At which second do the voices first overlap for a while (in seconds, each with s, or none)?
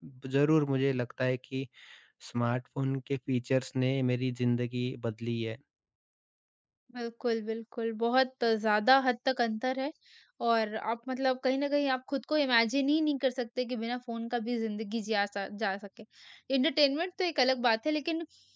none